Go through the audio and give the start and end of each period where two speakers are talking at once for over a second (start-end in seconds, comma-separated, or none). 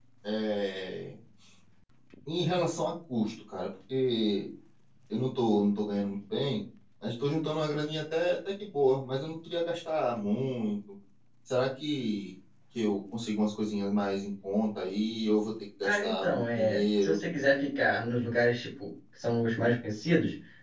15.8-17.2